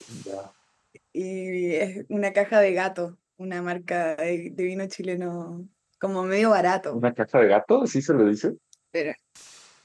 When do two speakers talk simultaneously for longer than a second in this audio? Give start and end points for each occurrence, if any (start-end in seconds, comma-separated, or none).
none